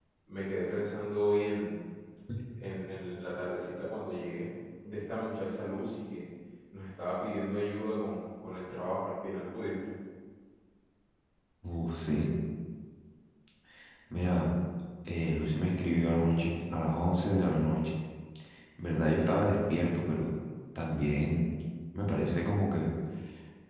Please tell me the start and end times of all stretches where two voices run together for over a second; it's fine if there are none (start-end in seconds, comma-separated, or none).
none